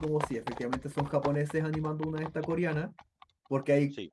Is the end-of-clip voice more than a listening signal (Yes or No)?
No